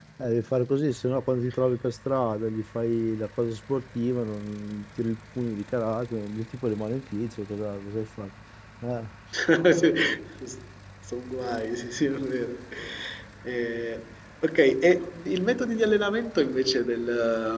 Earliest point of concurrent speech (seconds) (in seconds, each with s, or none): none